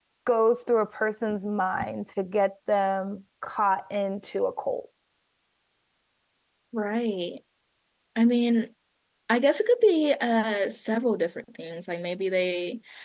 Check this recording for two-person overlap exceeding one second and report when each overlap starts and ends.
none

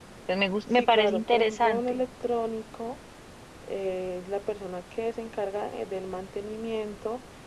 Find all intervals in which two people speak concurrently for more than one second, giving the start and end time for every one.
0.7-2.0

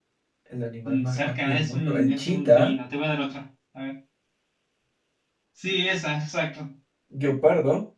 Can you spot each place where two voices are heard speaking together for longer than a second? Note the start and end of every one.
0.8-2.7

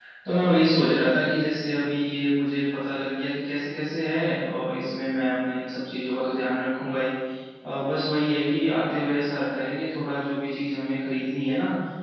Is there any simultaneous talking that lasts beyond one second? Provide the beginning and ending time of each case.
none

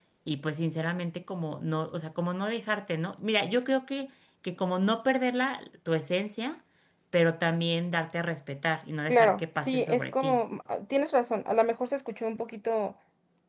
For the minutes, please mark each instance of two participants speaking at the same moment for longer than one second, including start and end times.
9.1-10.4

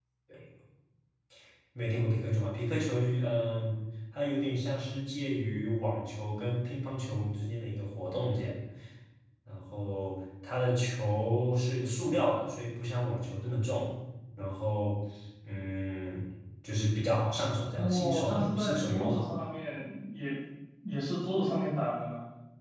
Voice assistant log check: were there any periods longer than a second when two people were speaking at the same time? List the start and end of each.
17.8-19.3

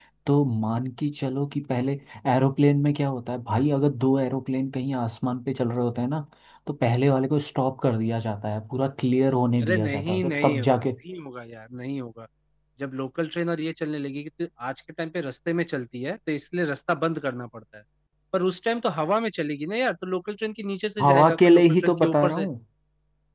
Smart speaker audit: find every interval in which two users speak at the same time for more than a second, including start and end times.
9.6-10.9, 21.0-22.4

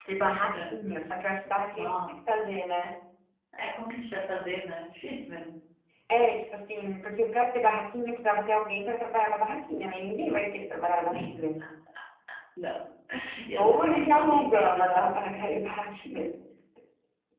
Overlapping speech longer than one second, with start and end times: 13.6-15.1

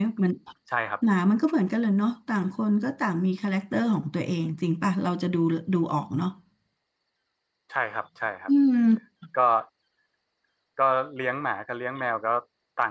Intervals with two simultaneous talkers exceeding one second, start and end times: none

